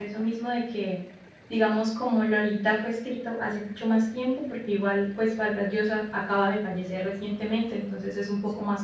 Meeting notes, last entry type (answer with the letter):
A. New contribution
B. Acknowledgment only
B